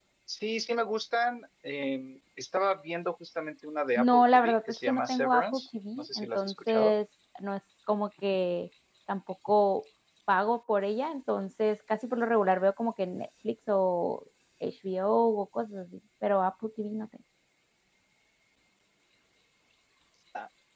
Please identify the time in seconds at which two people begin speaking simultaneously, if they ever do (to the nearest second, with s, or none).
4 s